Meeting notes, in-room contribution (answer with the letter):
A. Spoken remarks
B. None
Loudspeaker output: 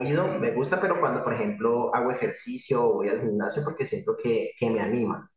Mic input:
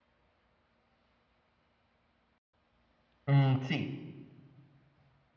A